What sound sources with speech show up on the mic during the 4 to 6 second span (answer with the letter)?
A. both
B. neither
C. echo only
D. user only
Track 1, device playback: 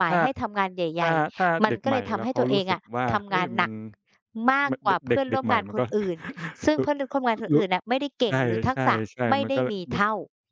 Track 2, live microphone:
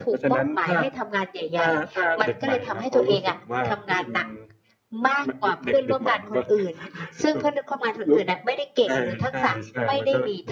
C